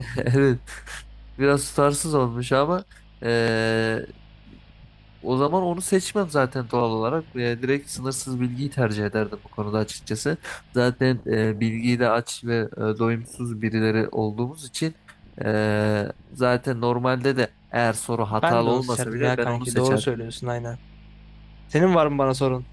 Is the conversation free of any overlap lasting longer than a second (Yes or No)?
No